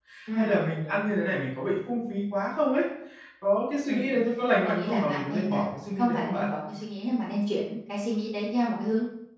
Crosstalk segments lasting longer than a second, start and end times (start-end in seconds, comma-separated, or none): 4.6-6.5